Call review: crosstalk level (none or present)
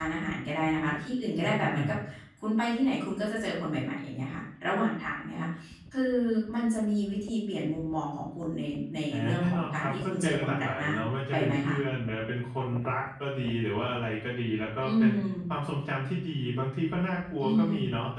present